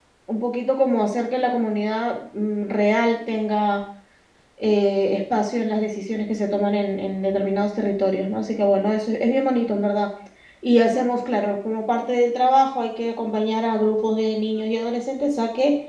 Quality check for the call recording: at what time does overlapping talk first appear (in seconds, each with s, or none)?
none